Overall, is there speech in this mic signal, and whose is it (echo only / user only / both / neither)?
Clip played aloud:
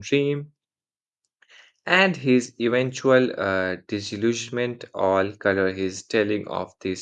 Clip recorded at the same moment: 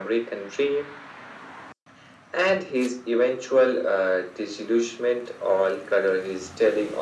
echo only